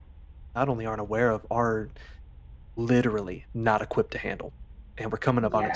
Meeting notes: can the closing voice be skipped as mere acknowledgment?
Yes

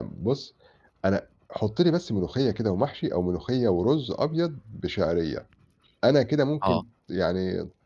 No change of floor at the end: Yes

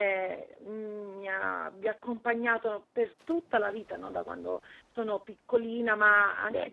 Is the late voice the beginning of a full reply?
No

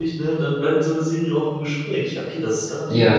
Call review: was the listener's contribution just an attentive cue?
No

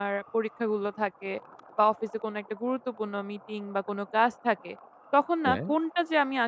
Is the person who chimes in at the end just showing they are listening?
Yes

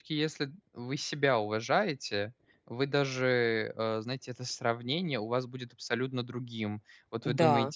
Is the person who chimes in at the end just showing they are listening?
Yes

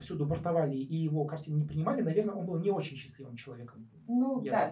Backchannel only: No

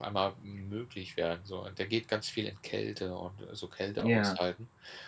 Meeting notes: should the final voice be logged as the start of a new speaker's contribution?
No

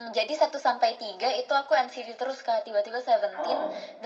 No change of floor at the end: Yes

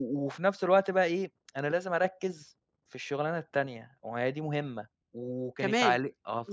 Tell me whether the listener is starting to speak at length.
No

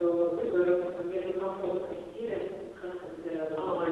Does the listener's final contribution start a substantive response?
Yes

